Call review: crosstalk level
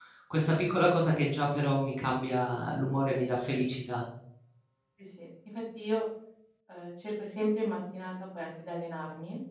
none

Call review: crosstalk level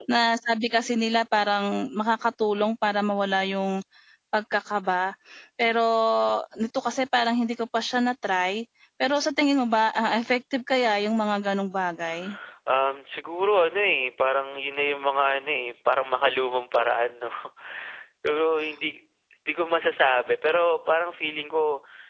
none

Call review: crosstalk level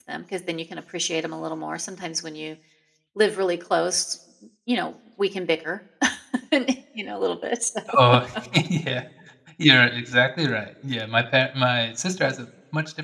none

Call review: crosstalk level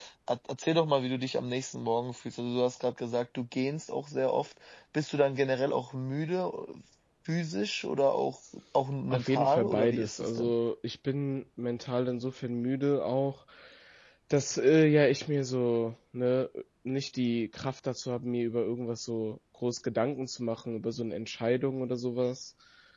present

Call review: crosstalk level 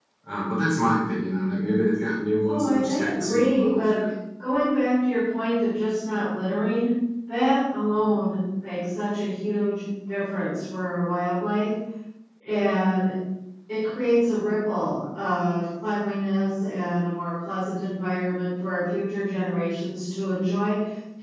present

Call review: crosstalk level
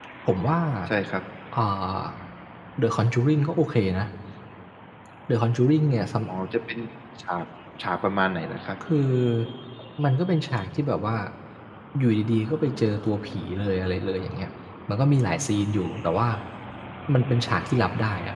none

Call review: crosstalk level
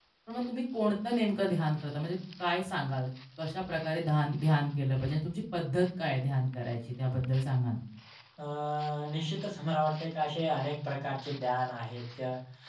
none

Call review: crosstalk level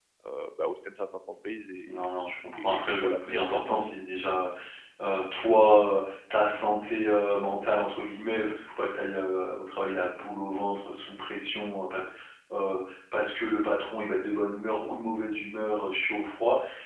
present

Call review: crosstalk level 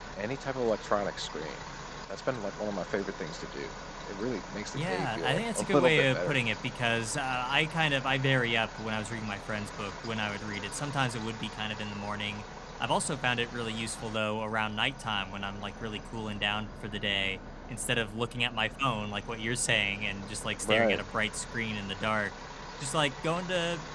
present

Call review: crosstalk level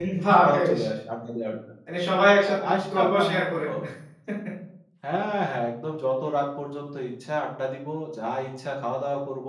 present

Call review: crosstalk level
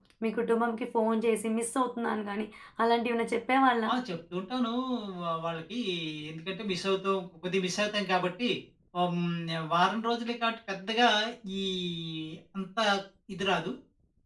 none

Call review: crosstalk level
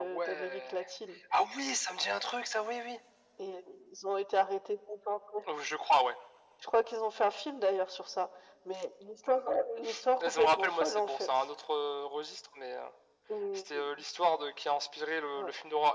present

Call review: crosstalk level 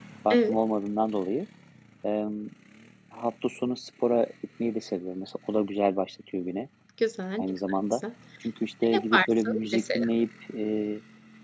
present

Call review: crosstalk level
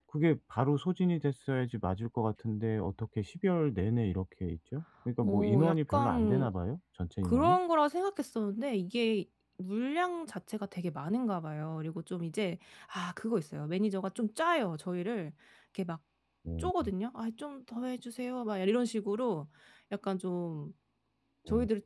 present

